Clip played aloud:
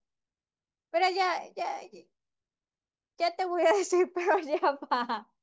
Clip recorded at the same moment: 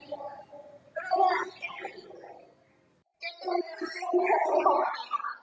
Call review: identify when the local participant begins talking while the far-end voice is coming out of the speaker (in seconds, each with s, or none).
none